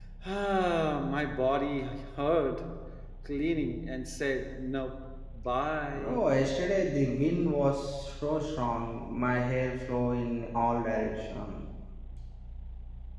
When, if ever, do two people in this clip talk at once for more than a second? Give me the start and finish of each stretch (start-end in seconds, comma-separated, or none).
none